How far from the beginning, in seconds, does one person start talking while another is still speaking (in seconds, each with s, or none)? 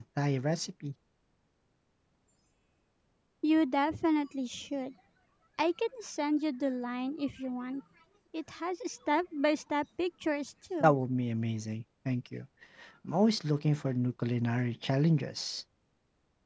none